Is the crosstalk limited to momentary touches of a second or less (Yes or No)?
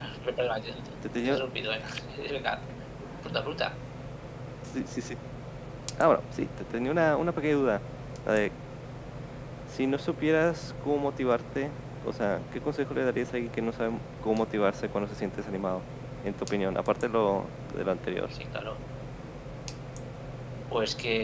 Yes